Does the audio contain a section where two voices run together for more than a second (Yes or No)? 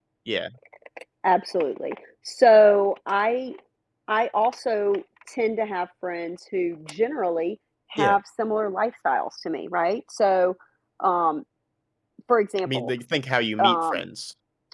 No